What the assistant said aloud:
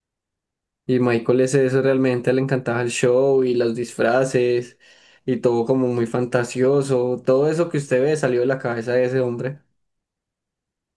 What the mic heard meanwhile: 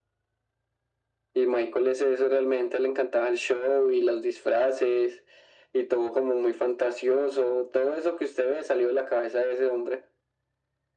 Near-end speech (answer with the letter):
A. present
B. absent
B